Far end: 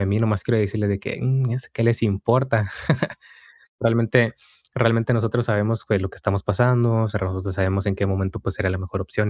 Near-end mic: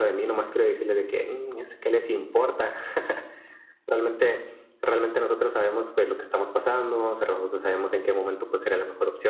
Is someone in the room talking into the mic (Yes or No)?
No